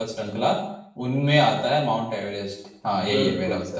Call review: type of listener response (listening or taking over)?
taking over